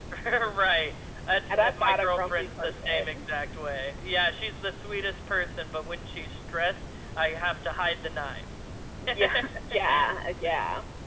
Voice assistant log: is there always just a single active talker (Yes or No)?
No